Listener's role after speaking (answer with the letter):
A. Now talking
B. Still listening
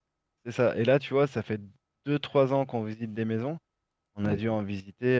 B